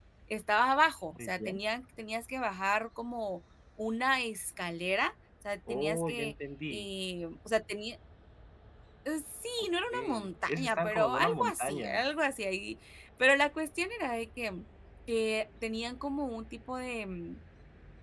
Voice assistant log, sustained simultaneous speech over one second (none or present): present